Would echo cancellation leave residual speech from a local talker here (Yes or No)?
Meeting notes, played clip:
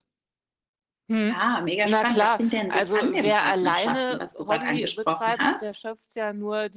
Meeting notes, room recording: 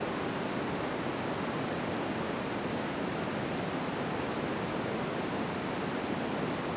No